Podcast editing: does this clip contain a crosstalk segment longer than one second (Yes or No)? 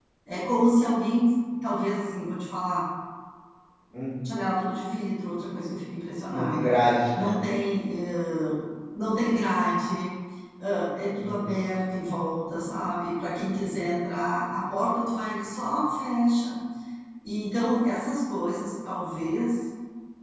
No